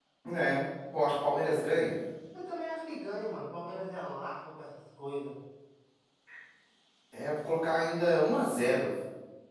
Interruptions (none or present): none